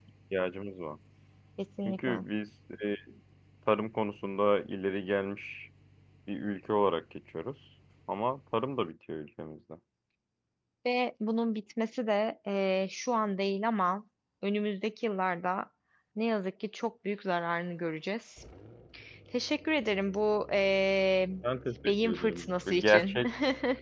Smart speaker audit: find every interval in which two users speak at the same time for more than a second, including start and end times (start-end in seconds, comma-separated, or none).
21.9-23.2